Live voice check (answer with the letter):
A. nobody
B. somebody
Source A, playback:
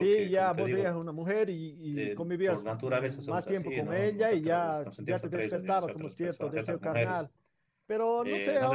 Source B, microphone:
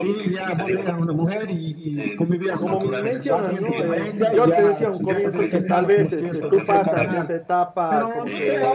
B